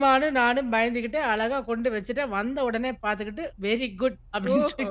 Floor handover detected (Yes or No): Yes